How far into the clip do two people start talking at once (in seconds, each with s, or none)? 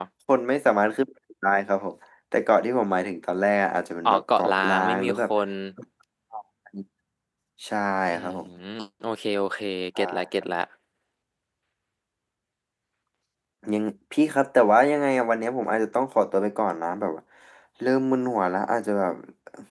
4.0 s